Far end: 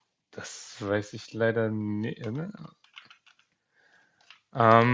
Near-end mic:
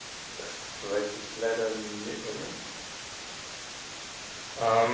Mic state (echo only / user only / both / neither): echo only